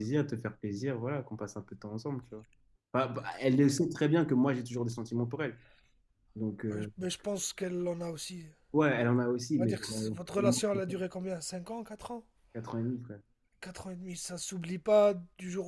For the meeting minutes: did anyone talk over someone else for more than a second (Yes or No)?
Yes